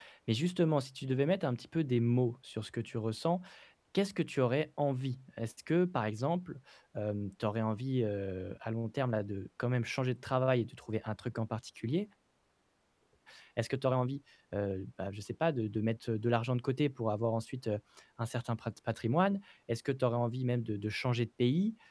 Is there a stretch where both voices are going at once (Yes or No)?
No